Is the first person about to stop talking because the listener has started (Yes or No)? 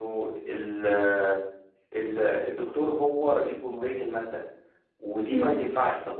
No